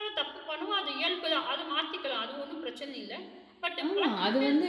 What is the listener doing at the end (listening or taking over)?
taking over